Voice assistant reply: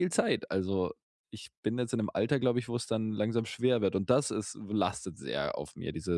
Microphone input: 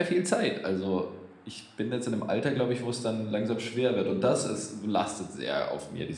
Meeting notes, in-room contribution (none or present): none